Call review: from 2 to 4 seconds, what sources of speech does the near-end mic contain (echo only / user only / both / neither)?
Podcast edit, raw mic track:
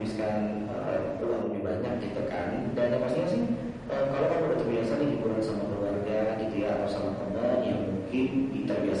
echo only